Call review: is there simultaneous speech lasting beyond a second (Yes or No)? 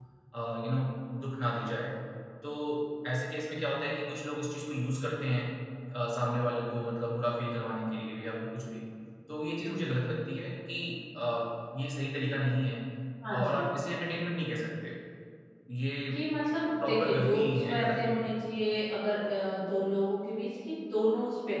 Yes